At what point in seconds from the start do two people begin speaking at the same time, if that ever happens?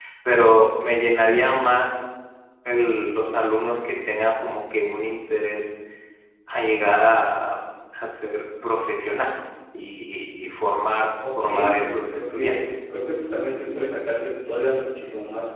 11 s

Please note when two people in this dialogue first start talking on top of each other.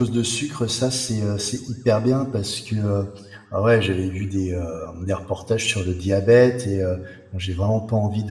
none

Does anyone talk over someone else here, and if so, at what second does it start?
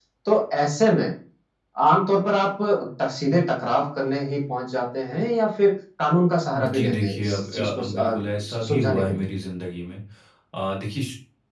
7 s

